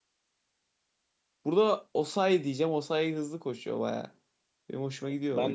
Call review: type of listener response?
taking over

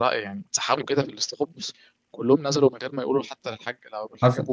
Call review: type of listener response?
taking over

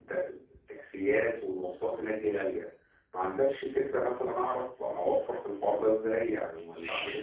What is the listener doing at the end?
taking over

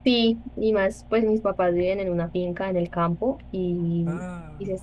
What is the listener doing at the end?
listening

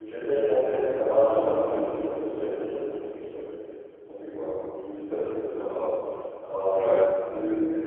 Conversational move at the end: listening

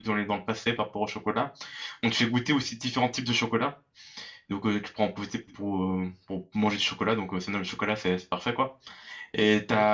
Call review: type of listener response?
listening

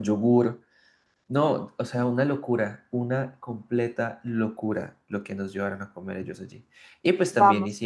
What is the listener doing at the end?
taking over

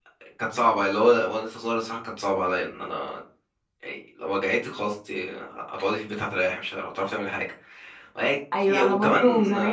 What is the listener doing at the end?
taking over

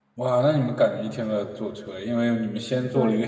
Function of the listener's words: listening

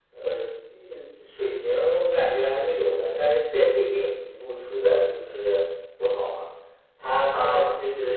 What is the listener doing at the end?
listening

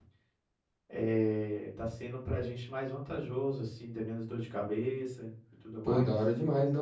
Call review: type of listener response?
taking over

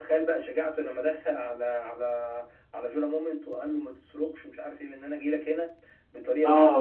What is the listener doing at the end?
taking over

